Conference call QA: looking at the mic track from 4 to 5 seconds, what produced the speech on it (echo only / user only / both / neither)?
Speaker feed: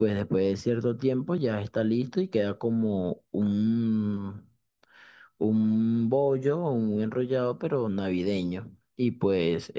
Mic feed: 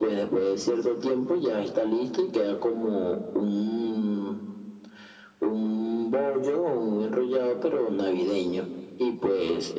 echo only